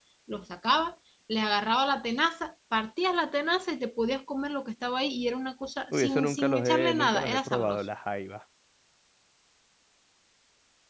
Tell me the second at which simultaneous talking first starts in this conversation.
5.9 s

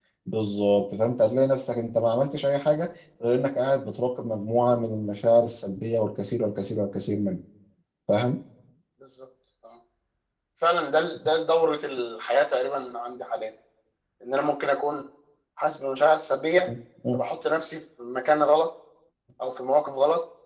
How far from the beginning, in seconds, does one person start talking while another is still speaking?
none

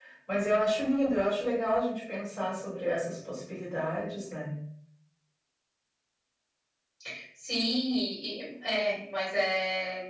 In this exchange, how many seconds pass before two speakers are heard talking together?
none

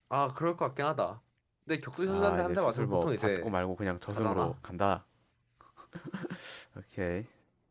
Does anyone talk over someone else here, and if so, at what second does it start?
2.0 s

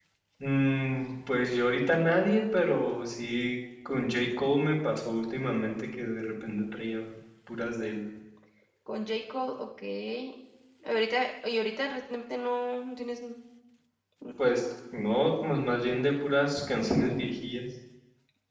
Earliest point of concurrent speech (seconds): none

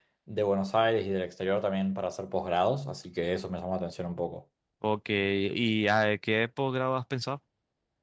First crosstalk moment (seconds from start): none

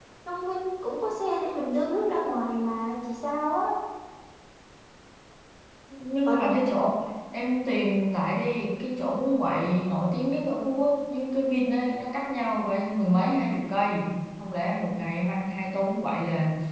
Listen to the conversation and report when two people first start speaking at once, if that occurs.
none

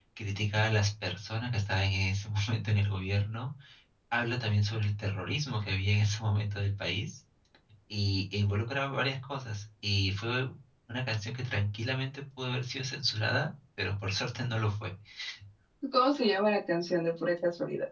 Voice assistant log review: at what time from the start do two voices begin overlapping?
none

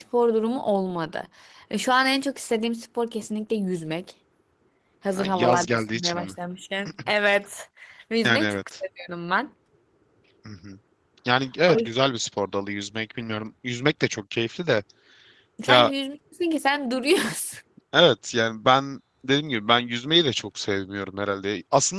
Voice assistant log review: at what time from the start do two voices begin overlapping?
5.2 s

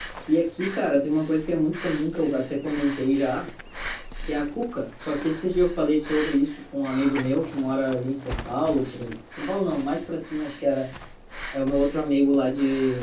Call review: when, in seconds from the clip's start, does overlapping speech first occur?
none

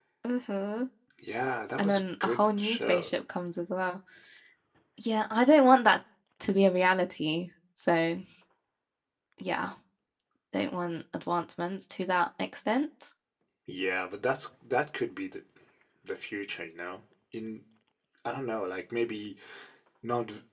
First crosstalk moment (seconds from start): 1.8 s

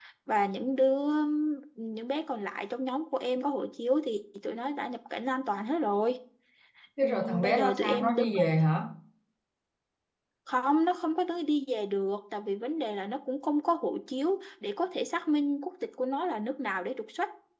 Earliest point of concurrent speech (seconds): 7.0 s

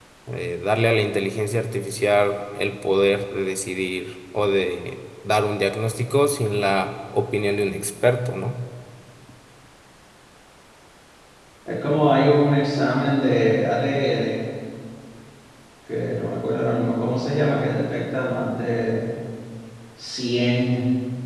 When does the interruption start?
none

